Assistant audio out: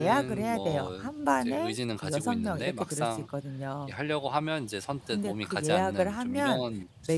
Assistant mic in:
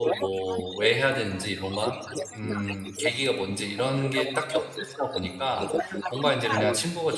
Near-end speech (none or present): present